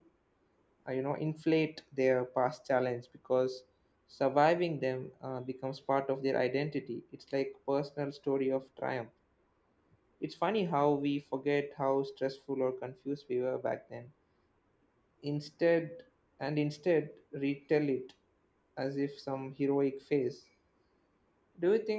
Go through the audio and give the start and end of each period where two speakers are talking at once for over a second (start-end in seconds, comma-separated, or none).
none